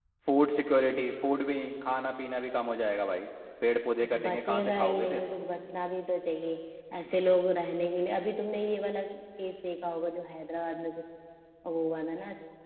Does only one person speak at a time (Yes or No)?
No